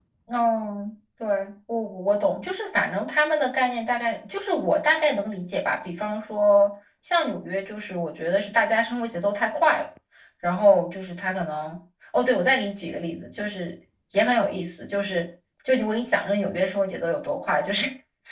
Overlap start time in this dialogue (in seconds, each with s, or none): none